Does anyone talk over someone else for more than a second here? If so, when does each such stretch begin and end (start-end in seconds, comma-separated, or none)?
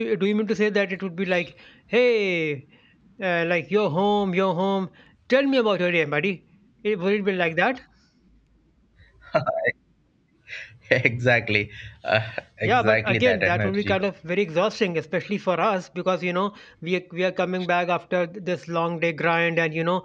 12.6-14.0